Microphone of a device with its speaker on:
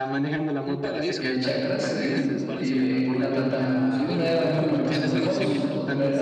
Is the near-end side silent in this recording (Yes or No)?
No